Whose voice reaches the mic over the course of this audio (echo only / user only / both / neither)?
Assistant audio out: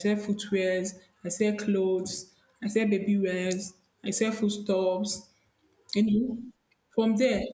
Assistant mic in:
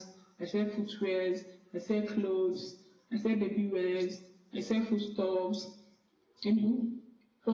echo only